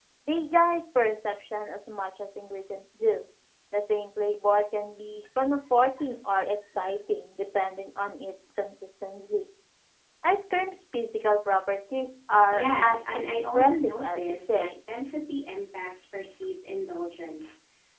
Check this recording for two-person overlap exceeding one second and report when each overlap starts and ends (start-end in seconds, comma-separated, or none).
12.5-14.9